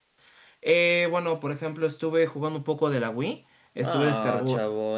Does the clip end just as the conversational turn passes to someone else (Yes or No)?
Yes